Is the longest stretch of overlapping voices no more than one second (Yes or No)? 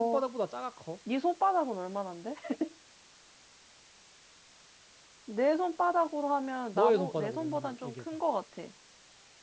No